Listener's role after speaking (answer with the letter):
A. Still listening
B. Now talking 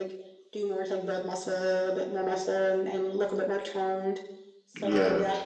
A